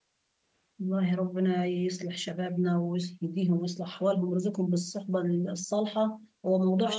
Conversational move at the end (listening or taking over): listening